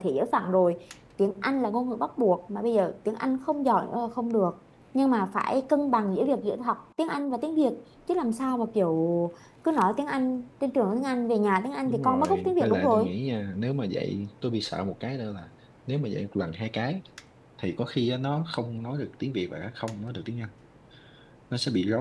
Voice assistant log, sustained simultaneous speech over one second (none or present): present